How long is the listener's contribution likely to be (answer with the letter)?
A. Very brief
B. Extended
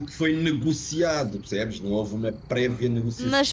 B